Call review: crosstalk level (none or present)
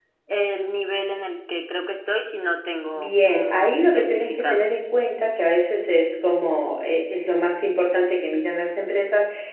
present